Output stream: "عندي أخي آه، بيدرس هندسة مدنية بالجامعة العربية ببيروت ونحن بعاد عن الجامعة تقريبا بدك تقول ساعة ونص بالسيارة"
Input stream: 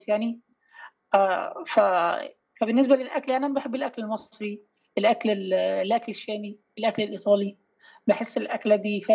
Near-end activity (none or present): present